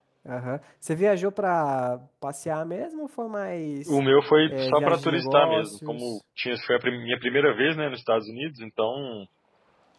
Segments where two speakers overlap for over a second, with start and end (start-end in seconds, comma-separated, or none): 4.5-6.2